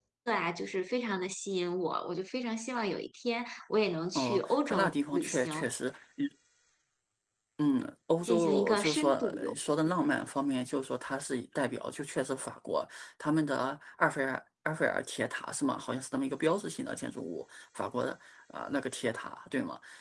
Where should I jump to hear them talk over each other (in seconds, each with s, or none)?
4.2 s